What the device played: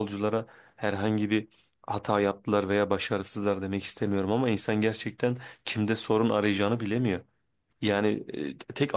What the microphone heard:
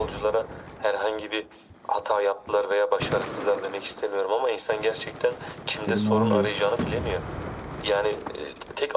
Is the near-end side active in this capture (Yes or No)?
Yes